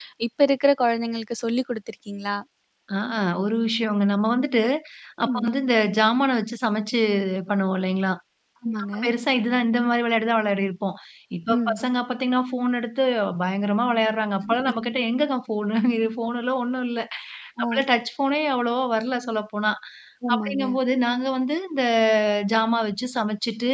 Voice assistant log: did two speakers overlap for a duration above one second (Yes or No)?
No